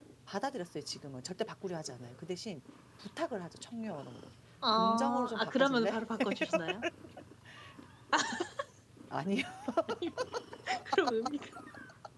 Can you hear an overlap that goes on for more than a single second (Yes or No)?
Yes